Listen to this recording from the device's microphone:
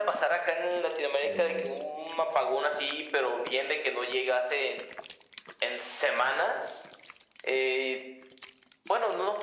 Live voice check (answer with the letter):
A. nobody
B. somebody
B